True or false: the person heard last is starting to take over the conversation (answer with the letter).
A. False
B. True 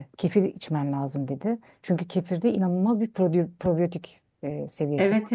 B